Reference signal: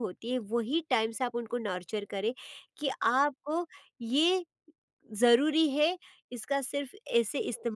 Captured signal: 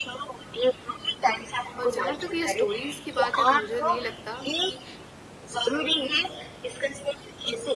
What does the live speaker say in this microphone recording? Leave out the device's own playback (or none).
और जहाँ तक ये स्टोरीज़ की बात है तो मुझे नहीं लगता कि